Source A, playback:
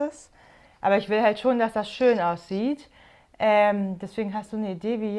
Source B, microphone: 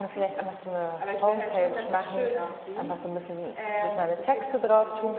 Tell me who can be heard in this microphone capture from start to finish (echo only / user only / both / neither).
both